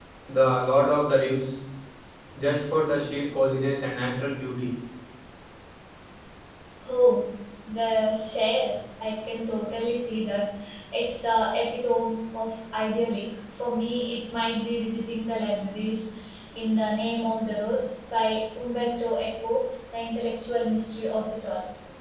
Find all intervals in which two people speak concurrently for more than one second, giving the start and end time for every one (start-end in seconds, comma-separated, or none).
none